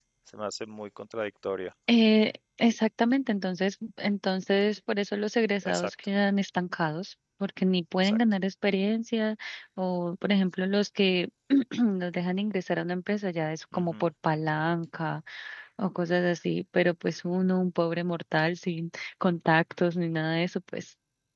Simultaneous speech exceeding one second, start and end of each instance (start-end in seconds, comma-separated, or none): none